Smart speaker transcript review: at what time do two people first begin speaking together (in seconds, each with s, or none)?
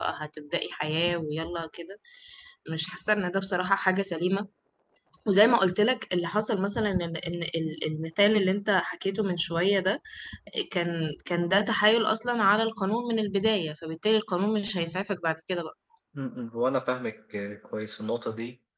none